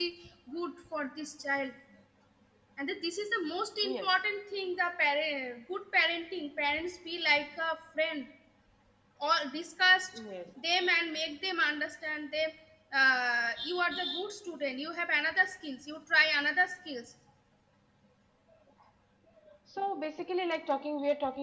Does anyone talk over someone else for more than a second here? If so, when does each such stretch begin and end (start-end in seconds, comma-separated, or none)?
none